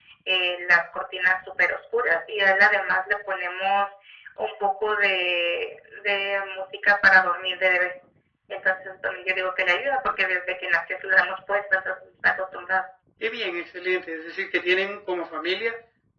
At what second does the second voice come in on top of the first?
none

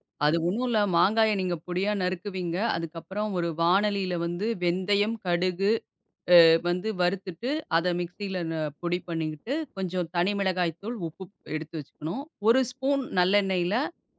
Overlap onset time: none

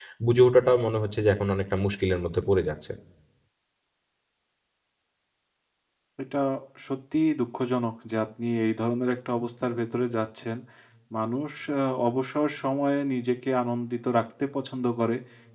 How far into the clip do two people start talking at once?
none

